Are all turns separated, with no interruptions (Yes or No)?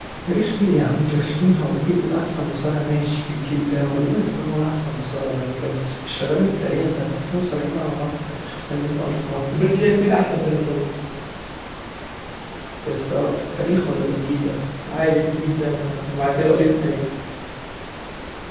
Yes